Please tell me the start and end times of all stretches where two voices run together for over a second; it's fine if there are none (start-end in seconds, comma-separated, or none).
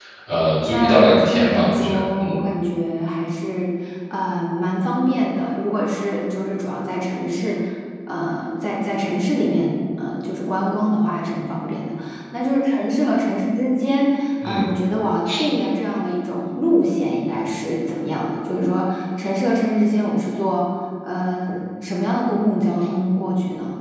0.7-2.4